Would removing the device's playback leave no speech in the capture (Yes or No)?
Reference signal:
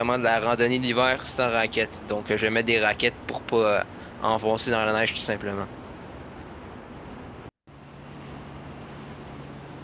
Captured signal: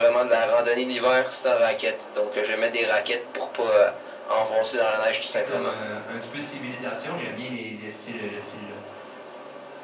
No